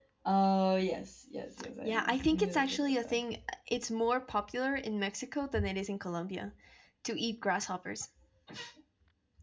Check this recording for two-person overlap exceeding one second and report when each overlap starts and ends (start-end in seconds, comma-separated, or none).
1.8-3.2